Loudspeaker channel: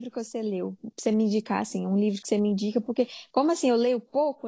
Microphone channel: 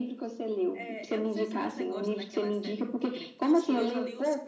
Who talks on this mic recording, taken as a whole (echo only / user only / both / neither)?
both